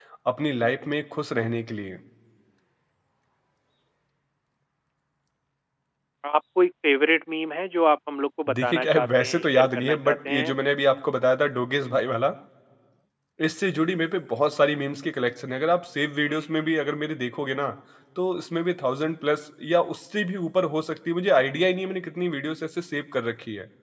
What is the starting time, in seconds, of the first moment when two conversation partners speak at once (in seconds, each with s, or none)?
8.6 s